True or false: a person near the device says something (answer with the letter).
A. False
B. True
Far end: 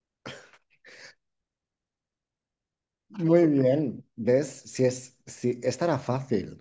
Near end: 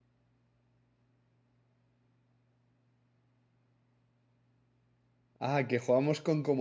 B